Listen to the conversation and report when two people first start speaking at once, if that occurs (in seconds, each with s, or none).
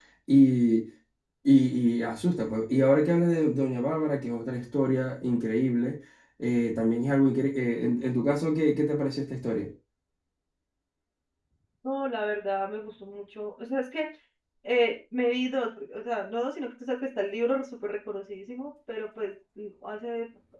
none